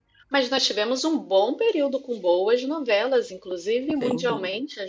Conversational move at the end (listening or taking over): listening